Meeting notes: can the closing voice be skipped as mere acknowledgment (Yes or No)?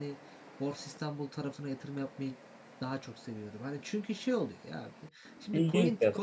Yes